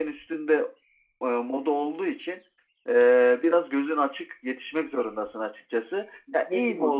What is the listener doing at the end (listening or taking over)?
listening